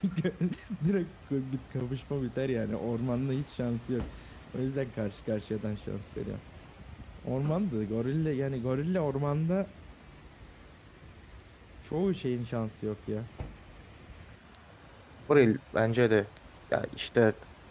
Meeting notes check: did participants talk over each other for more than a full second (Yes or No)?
No